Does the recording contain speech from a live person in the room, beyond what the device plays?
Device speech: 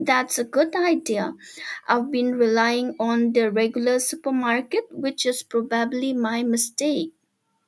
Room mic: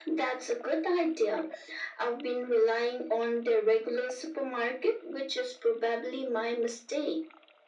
No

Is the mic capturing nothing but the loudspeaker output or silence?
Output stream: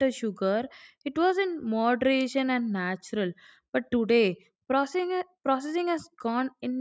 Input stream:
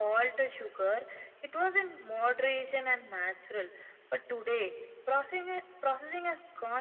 Yes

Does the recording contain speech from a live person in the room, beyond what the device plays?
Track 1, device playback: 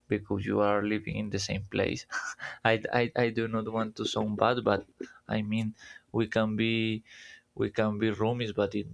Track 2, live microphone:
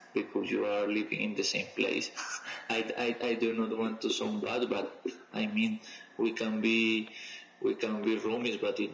No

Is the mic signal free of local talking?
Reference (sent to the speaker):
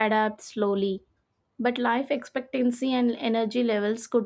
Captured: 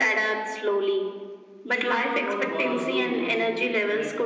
No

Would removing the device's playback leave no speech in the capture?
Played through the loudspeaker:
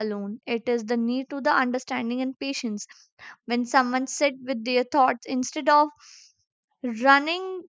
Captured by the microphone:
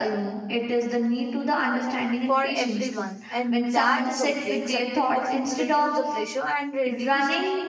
No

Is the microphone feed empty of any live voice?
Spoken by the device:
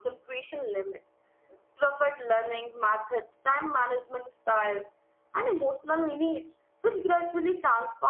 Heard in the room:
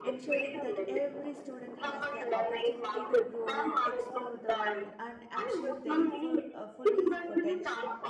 No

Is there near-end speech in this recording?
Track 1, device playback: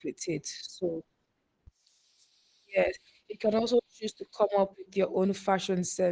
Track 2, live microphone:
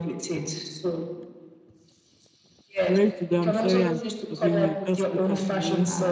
Yes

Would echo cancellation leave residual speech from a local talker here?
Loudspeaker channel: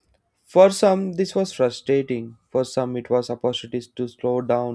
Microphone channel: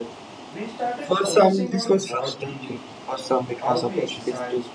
Yes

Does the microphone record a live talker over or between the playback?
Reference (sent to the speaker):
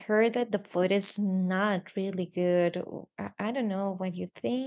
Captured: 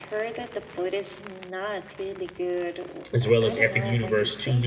Yes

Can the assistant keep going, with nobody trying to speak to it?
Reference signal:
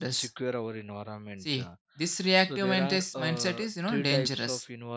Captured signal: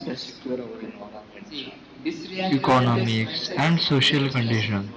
No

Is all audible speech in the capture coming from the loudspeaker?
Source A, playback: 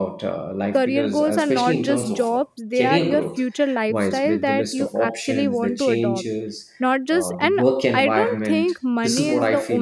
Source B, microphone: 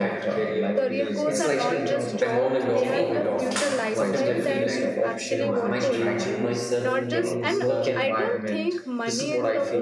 No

